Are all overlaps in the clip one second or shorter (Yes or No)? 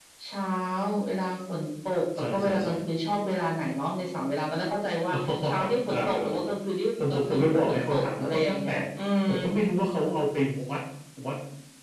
No